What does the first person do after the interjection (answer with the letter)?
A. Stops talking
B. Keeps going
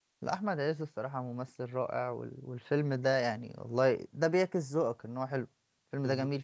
A